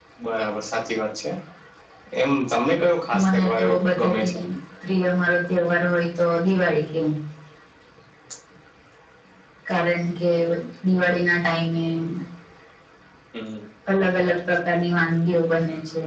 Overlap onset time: 3.1 s

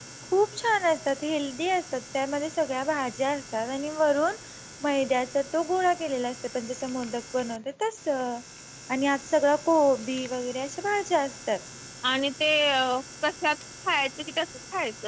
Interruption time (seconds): none

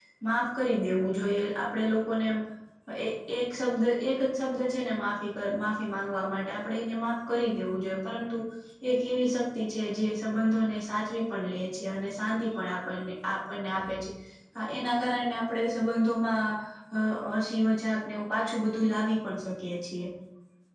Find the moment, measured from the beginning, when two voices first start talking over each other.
none

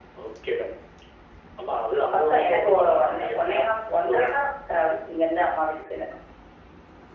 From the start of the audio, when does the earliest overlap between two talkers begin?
2.1 s

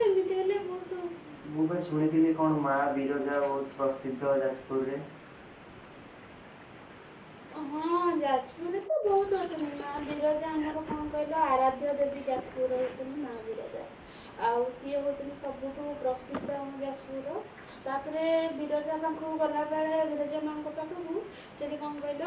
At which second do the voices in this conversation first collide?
none

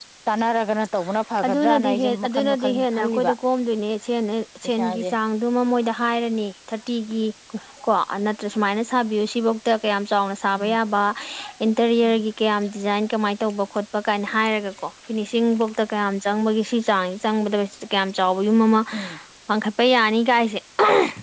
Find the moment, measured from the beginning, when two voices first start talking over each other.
1.5 s

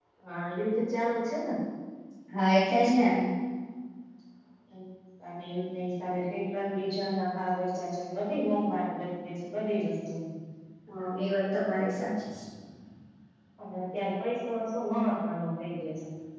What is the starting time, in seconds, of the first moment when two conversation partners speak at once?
none

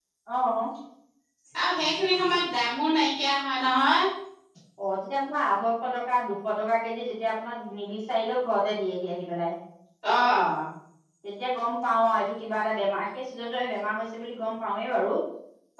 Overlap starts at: none

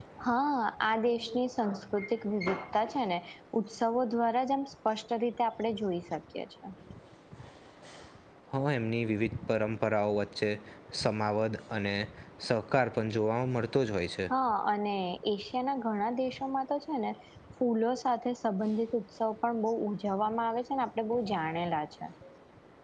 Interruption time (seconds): none

